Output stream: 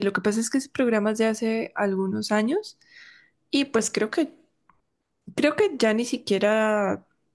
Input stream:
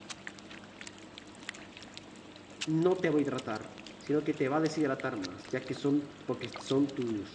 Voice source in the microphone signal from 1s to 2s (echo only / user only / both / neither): neither